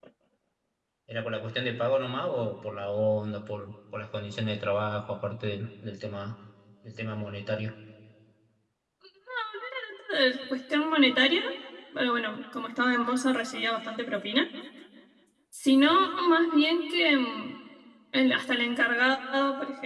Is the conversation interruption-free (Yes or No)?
Yes